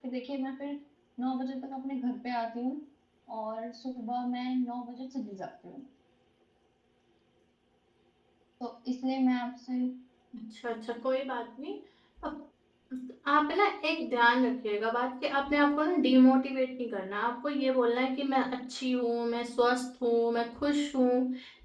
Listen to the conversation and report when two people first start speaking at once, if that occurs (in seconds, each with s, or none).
none